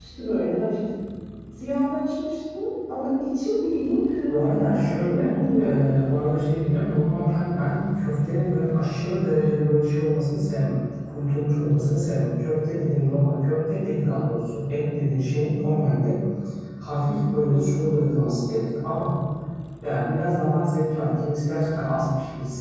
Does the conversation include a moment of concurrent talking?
Yes, from 4.3 s

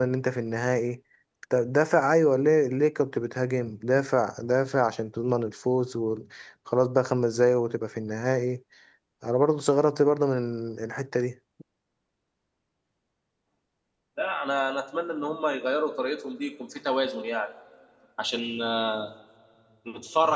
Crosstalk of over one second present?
No

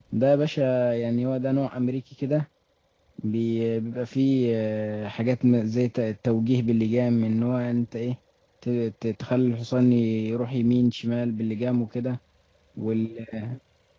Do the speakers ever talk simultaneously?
No

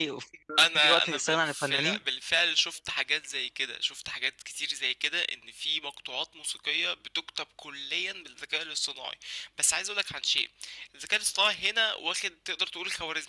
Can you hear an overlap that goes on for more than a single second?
Yes, from 0.8 s

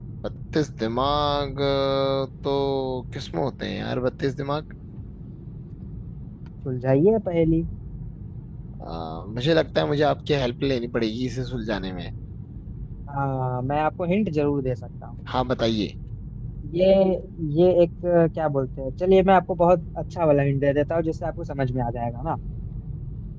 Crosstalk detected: No

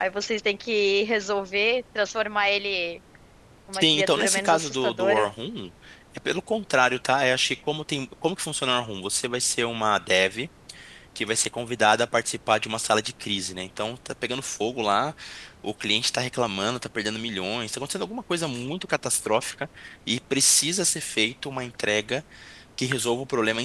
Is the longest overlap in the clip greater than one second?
Yes, from 3.8 s

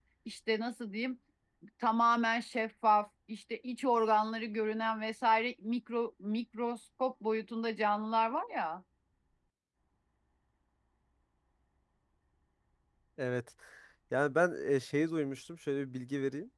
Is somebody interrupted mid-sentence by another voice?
No

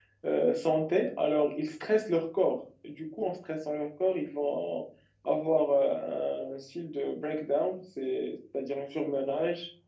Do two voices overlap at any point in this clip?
No

